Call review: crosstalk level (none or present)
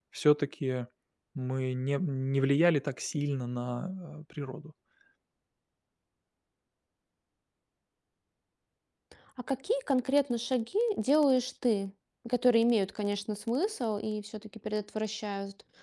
none